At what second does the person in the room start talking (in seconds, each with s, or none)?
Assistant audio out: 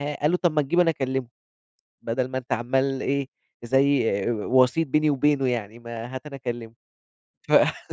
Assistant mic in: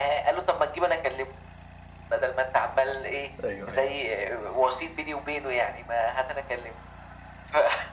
3.4 s